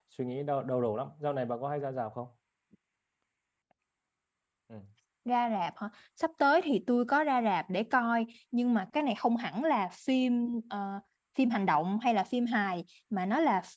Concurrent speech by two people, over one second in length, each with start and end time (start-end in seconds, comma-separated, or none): none